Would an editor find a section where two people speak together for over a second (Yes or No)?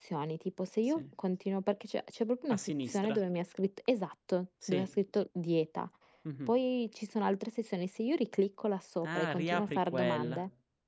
Yes